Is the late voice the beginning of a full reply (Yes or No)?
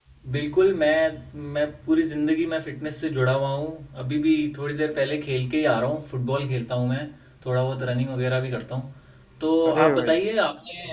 No